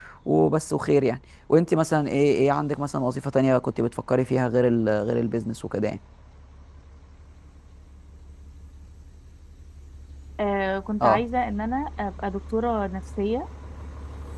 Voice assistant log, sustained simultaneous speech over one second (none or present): none